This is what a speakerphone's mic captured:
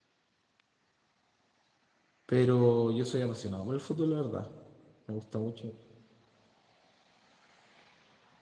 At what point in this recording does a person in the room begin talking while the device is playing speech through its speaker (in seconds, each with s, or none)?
2.2 s